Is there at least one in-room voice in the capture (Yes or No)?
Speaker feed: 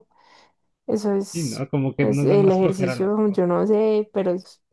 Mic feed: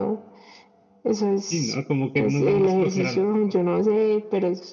No